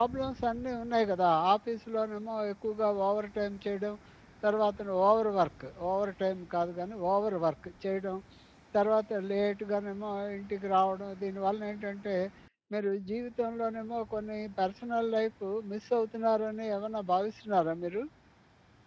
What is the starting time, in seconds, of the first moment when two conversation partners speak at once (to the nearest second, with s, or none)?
none